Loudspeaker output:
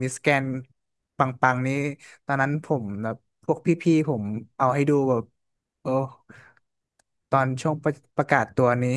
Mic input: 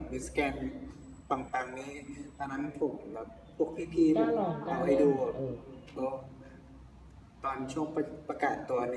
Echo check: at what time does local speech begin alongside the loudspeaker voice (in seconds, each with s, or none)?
4.2 s